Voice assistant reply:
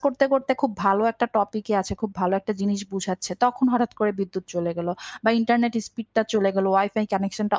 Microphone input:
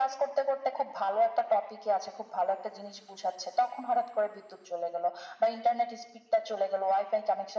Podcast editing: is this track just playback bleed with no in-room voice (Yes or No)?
Yes